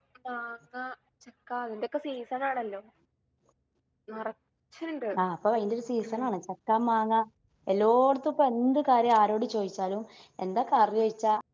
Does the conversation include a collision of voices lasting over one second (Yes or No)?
No